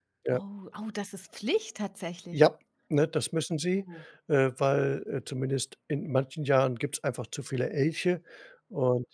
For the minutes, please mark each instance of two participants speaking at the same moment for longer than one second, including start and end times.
none

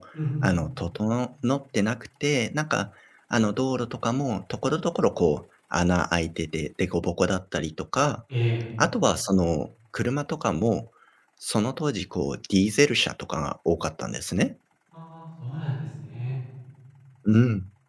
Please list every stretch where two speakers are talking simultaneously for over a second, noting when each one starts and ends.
none

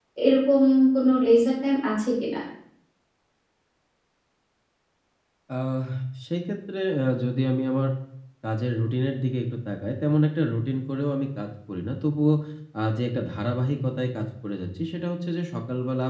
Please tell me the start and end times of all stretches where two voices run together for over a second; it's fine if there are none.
none

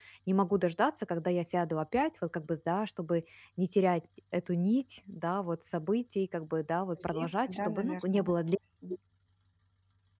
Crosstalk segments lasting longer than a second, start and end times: 7.0-8.3

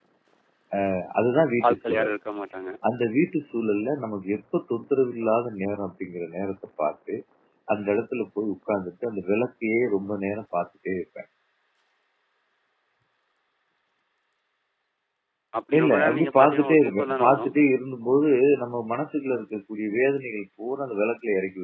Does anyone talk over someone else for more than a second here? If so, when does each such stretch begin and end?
15.8-17.5

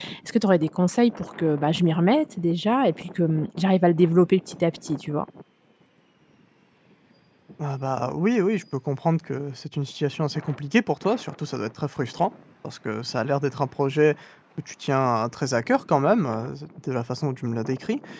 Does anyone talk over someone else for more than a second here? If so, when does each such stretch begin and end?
none

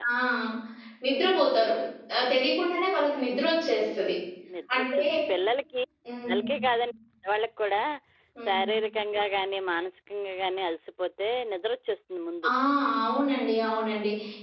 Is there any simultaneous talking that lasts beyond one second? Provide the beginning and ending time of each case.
none

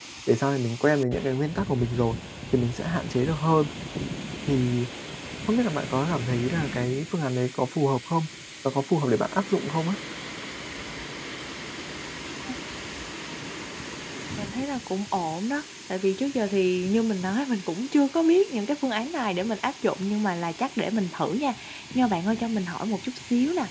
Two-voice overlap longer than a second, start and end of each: none

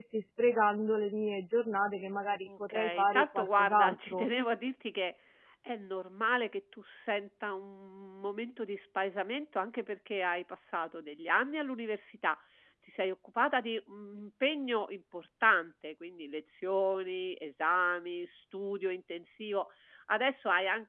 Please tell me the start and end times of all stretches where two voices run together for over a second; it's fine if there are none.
2.5-4.3

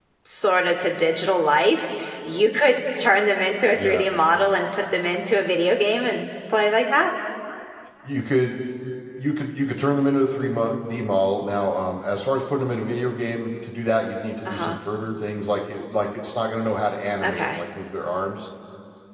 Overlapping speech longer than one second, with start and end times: none

